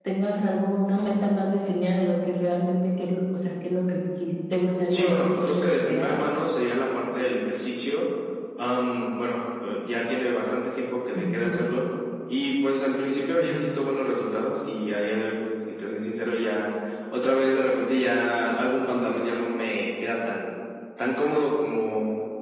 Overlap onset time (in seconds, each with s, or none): 4.9 s